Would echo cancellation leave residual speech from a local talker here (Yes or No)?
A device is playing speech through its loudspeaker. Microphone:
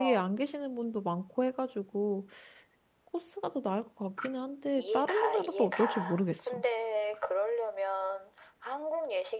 Yes